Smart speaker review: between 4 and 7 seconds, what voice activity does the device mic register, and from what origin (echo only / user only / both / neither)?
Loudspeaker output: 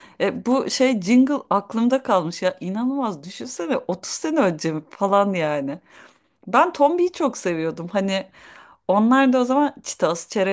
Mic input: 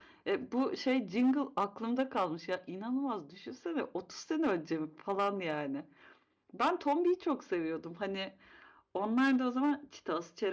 echo only